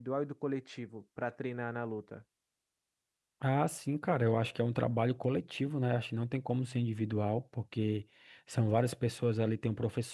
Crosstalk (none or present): none